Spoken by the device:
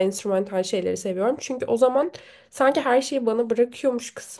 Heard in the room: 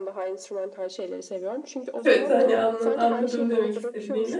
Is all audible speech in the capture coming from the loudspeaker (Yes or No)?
No